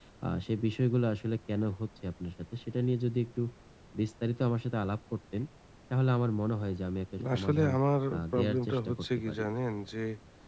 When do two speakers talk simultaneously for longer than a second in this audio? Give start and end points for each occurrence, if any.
8.2-9.4

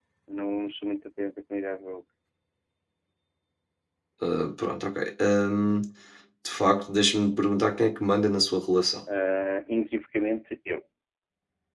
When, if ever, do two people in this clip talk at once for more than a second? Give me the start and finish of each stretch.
none

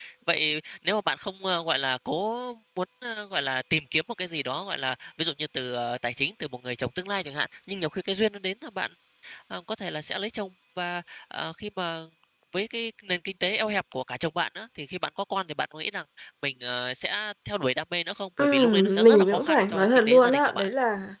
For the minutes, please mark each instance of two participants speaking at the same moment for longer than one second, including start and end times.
18.4-20.7

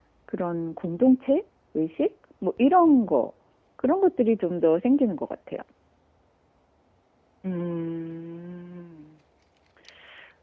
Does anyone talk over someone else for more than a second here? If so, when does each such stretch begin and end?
none

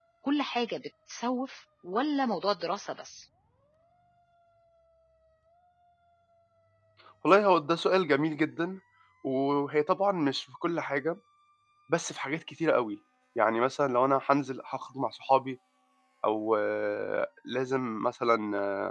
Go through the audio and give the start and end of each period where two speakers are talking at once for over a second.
none

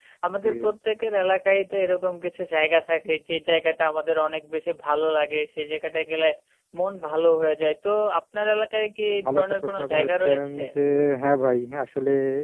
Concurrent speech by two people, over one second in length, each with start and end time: 9.1-10.6

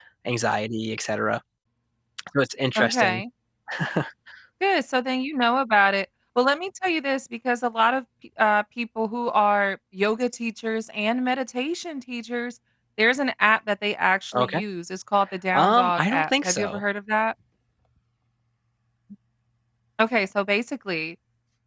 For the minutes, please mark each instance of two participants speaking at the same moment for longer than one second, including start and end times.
15.5-16.8

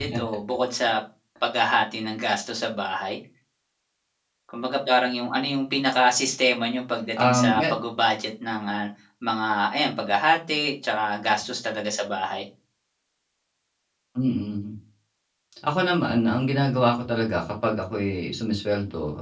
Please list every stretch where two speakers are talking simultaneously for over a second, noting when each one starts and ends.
none

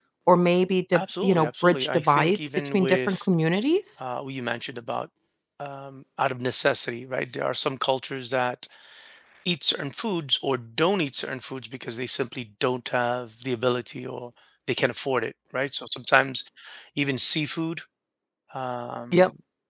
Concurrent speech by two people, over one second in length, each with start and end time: 0.9-3.3

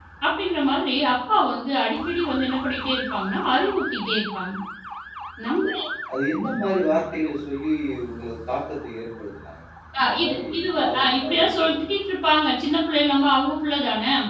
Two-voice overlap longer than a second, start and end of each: 10.0-11.7

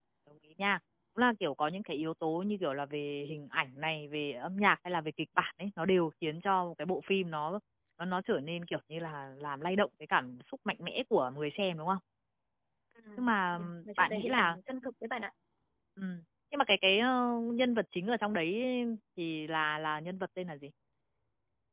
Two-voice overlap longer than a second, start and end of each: 13.2-14.6

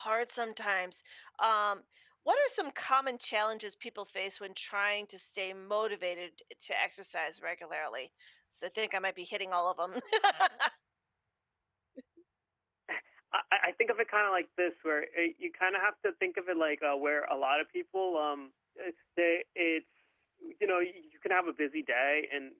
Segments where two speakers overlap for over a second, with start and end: none

